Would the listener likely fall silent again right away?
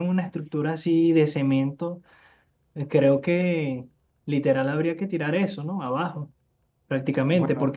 Yes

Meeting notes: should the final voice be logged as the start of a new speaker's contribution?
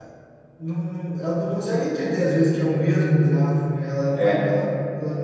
No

